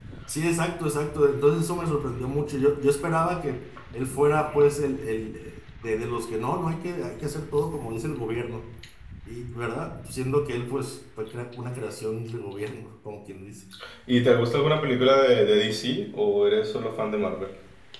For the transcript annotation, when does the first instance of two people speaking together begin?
none

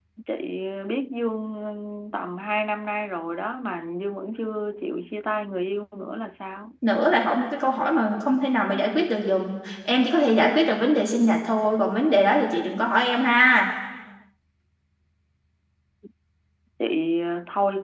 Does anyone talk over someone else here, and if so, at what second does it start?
none

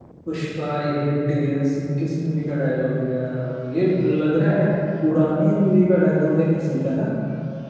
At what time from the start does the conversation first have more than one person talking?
none

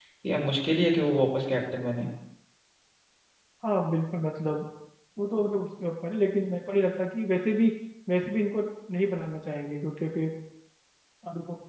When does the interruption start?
none

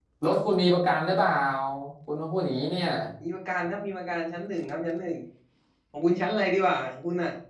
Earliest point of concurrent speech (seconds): none

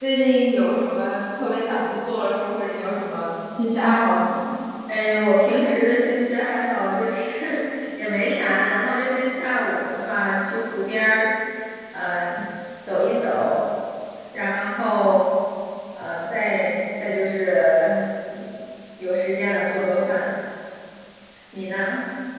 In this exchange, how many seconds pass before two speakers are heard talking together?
none

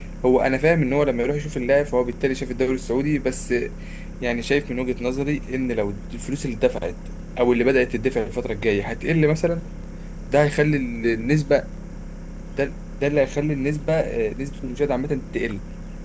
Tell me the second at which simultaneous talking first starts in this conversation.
none

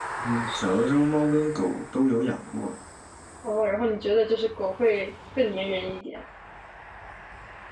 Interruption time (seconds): none

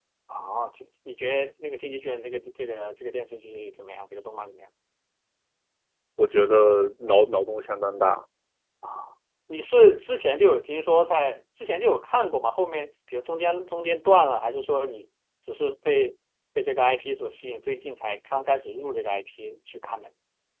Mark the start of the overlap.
none

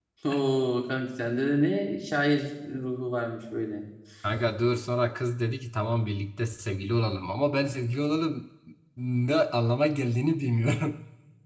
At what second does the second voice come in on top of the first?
none

